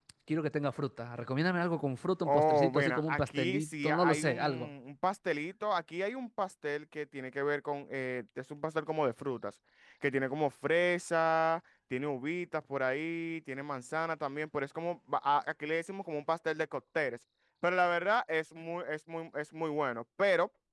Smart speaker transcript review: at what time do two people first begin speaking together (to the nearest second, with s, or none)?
2 s